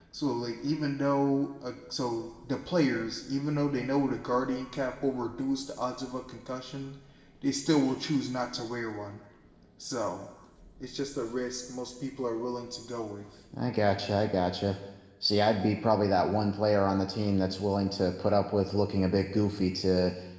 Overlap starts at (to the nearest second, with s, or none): none